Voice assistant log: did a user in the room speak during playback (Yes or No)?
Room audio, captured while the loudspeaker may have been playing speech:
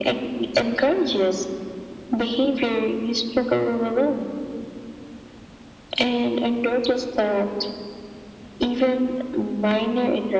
No